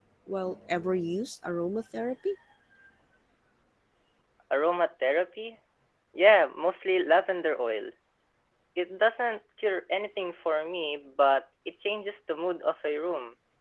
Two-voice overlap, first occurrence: none

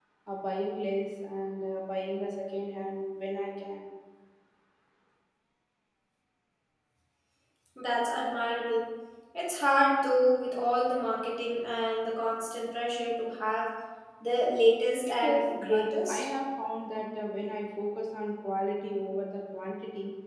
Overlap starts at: 15 s

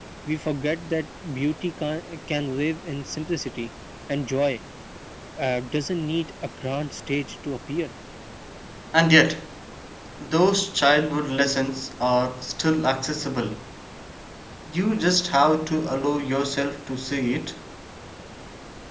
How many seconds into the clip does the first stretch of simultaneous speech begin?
none

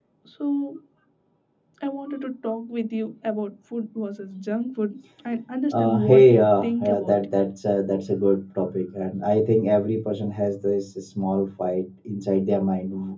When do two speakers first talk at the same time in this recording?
6 s

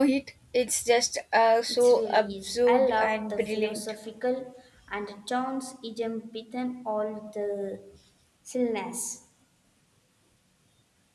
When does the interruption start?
2 s

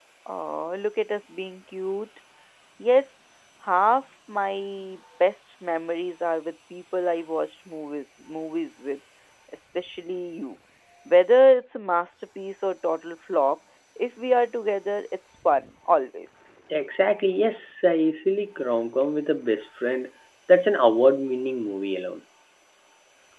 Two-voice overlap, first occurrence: none

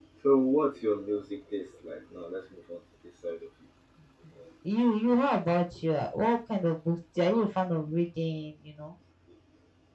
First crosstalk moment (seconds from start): none

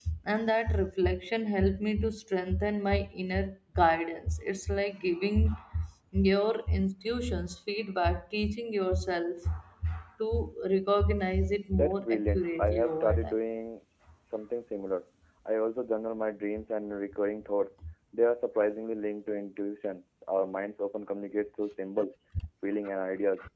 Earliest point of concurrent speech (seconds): 12 s

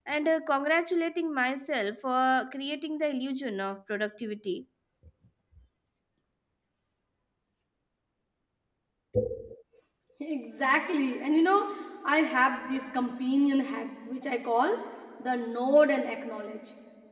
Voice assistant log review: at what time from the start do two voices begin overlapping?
none

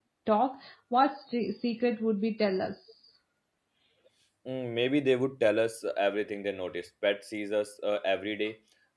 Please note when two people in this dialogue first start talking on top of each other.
none

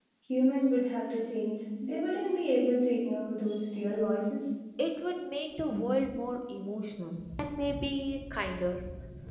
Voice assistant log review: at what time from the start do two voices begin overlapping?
none

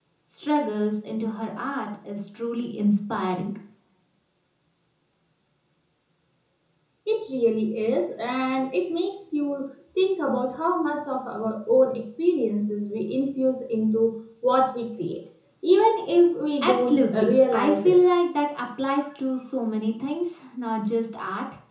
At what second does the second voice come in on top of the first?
17 s

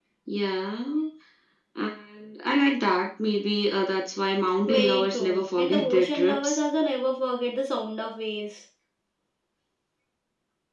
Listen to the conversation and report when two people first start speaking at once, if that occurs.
5 s

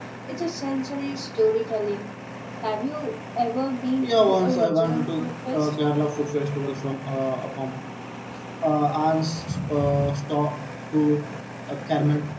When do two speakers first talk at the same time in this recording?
4 s

